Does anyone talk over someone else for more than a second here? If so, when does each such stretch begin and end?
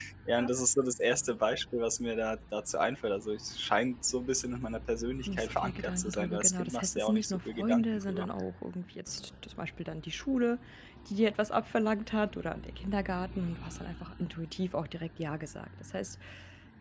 5.3-8.2

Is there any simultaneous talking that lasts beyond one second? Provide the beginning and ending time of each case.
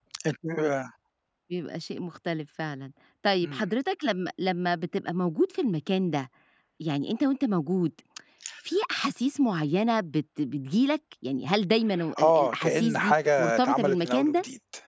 12.2-14.3

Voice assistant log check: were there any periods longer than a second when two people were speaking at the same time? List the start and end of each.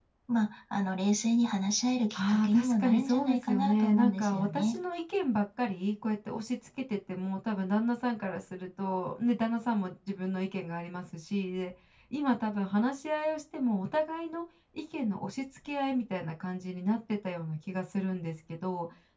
2.1-4.8

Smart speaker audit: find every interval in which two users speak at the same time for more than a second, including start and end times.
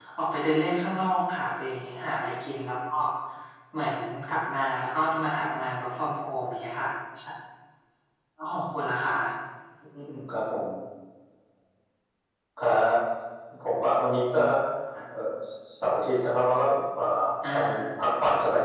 none

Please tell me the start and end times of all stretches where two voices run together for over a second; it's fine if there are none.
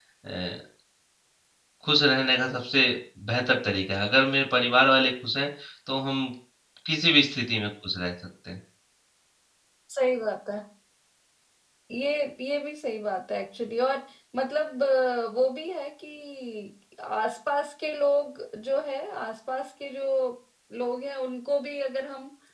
none

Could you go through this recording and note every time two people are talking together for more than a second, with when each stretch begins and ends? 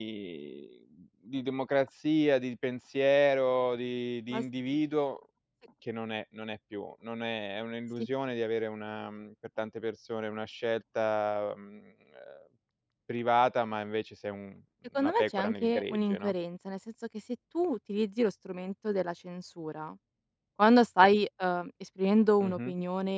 15.0-16.3

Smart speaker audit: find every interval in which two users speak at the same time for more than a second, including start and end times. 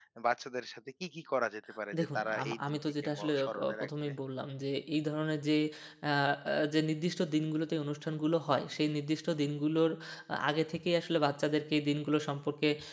2.0-4.1

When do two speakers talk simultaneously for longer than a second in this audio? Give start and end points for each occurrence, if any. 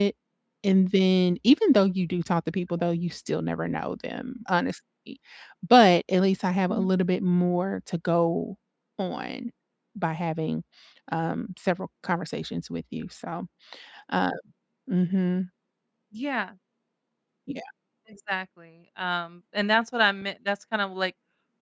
none

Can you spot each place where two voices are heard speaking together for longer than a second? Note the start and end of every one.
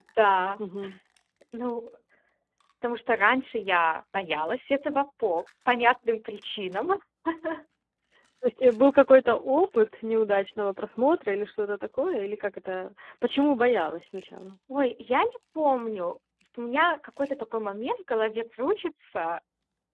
none

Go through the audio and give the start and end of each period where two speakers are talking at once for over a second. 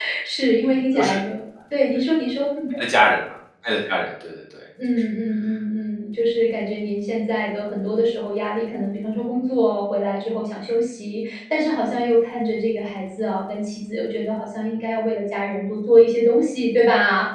none

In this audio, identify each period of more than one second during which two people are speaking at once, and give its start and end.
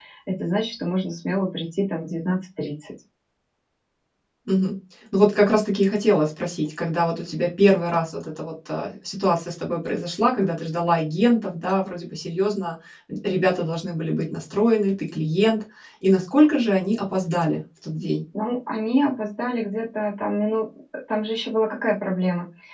none

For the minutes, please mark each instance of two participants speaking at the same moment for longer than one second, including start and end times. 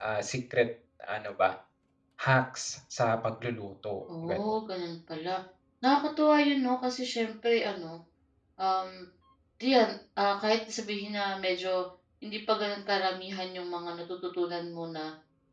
none

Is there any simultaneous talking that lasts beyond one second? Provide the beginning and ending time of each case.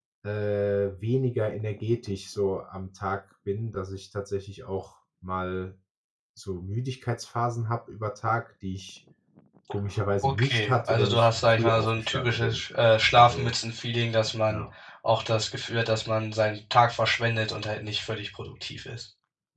10.2-12.6

